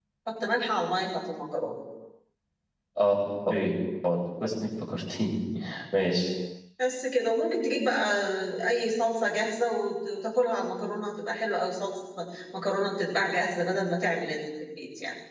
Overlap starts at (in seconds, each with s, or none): none